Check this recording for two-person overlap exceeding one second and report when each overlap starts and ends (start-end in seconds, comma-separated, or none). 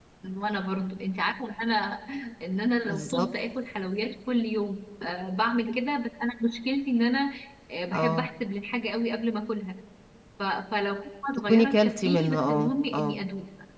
11.5-13.2